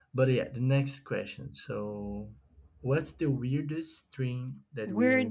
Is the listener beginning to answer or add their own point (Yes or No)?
Yes